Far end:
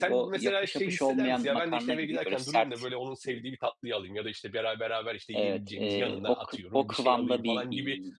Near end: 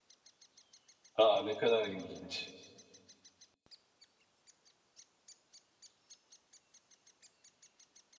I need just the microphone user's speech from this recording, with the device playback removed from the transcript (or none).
A, ne kadar ilginç!